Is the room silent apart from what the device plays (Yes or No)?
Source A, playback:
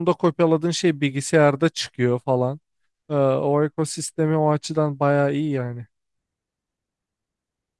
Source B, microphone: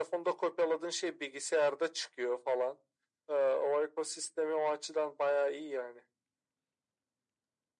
Yes